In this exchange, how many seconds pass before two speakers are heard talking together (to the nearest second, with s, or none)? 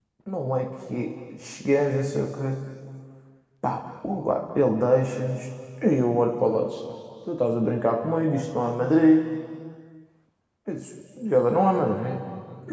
none